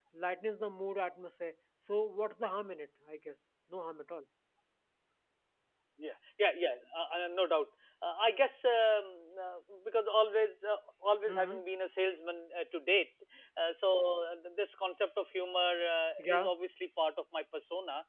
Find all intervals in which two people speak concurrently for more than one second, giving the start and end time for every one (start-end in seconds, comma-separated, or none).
none